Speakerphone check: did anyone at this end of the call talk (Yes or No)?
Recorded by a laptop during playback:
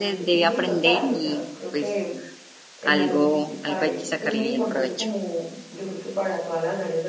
Yes